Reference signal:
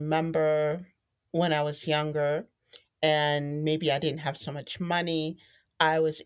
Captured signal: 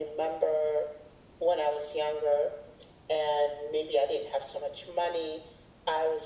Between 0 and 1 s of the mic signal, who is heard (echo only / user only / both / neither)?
echo only